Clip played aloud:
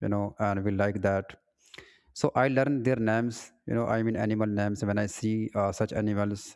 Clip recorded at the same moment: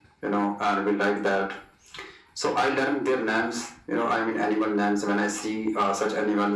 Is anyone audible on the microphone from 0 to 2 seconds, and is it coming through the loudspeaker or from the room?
echo only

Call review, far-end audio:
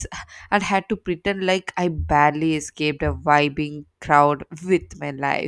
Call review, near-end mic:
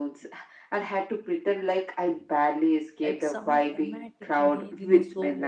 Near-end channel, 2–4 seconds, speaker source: both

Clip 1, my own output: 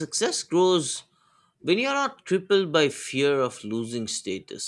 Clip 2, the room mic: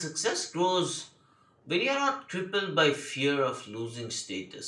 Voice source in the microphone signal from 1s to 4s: echo only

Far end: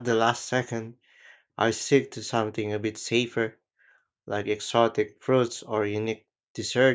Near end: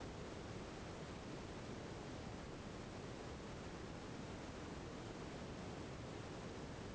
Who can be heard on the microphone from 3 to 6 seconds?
neither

